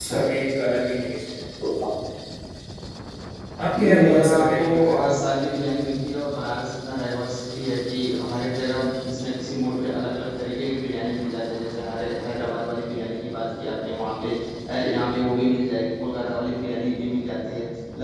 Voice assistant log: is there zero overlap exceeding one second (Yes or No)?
No